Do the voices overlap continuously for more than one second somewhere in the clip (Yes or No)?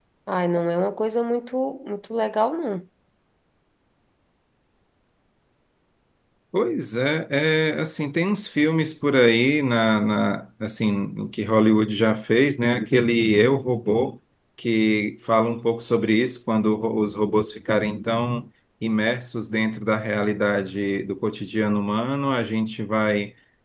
No